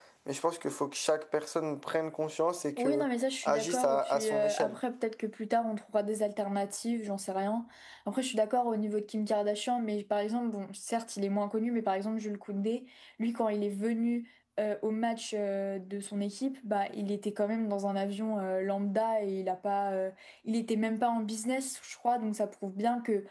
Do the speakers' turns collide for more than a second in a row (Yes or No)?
Yes